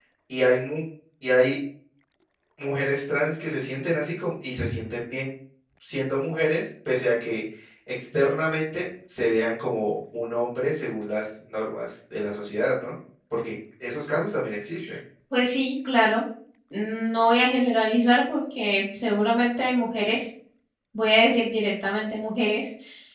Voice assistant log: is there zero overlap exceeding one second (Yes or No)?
Yes